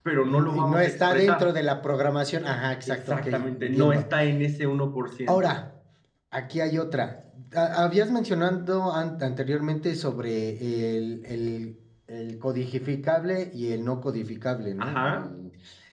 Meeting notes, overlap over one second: present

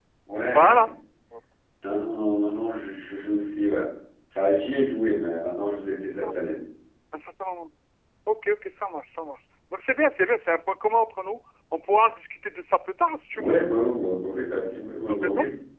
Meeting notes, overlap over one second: none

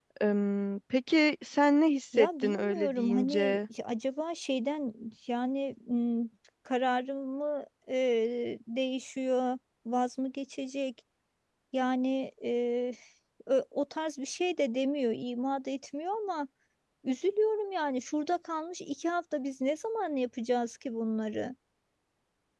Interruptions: present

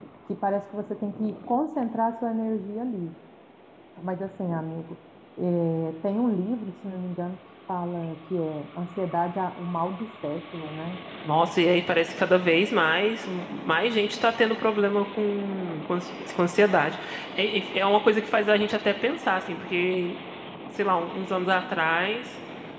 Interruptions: none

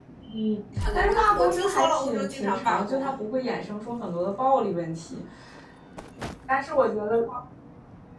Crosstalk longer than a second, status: present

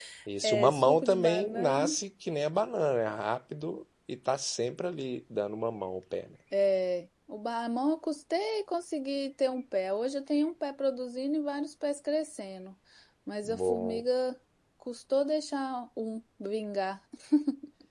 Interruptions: present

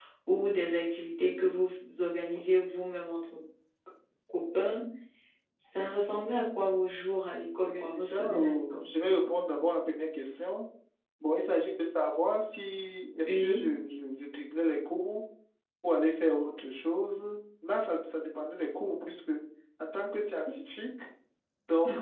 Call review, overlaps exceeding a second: present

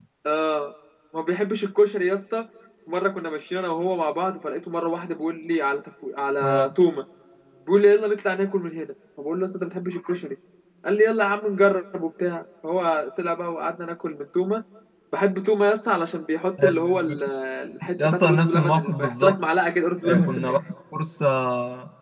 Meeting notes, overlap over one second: present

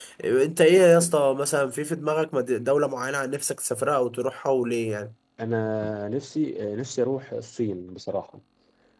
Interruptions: none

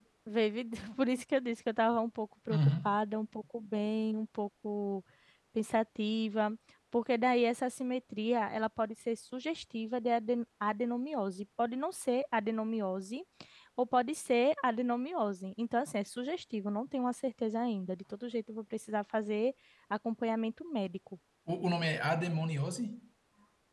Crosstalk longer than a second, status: none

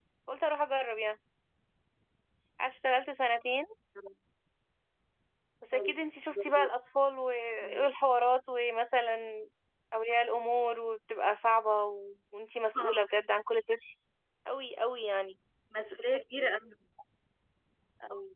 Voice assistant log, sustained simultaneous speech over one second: none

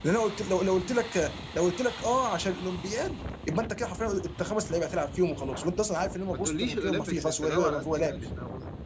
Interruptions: present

